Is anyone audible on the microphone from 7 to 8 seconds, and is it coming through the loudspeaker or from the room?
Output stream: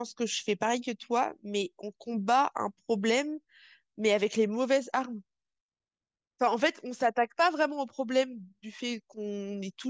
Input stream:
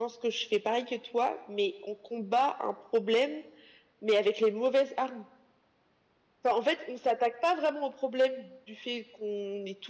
echo only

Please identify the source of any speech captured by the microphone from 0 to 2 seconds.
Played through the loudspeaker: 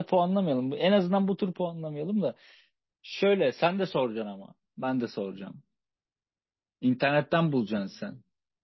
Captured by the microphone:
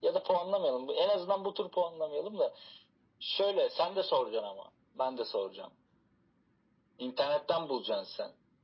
echo only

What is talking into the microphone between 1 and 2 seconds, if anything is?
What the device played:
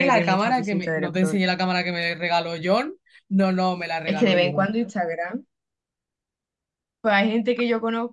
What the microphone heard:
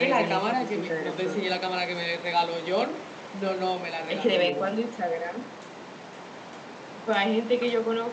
echo only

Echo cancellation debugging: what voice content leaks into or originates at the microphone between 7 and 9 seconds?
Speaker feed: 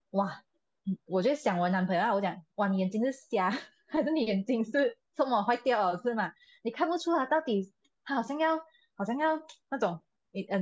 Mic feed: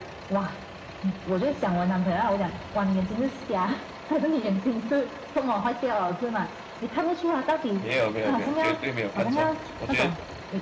both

